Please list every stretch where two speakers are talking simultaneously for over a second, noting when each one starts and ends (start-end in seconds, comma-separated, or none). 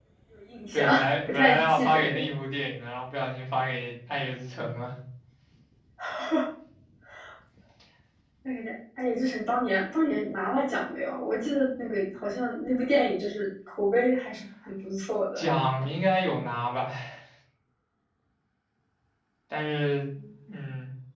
0.7-2.2